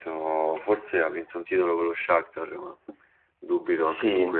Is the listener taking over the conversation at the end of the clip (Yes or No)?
Yes